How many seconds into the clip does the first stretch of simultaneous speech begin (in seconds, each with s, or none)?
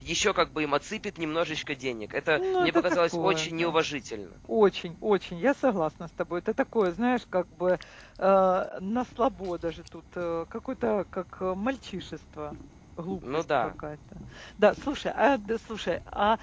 2.4 s